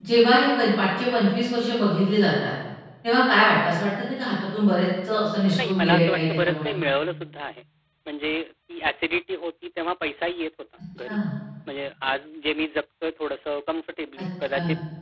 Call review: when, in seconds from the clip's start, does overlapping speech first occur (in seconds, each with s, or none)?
5.4 s